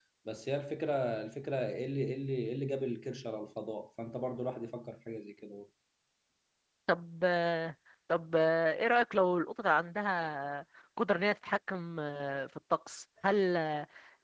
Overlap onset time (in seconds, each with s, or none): none